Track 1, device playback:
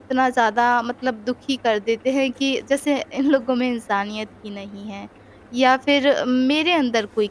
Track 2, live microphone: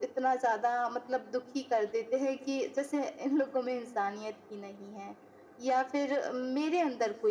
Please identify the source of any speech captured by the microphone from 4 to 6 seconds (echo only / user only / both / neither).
echo only